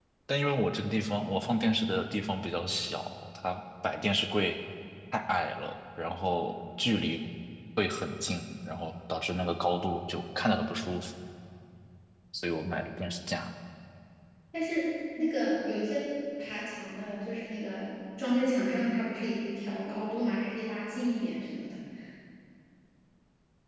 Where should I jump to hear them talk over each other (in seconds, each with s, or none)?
none